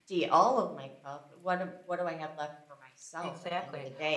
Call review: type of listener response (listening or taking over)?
taking over